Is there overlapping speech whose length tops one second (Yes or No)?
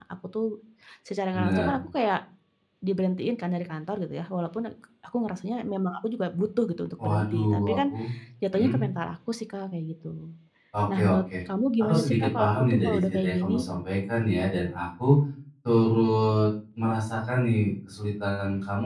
Yes